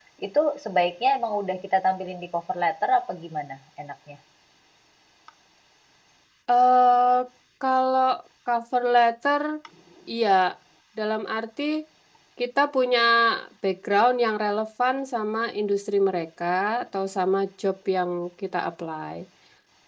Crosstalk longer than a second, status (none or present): none